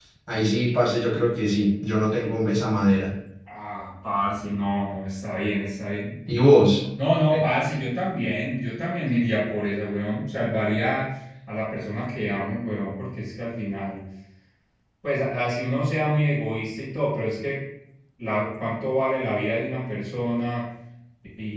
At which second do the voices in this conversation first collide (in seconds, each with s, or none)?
none